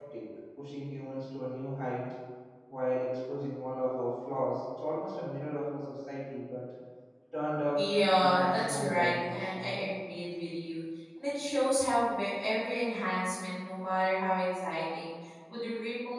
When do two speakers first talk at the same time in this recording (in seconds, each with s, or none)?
7.8 s